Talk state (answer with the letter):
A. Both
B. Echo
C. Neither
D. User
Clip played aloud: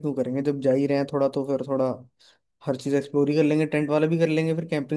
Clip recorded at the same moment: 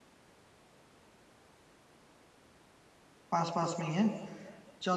D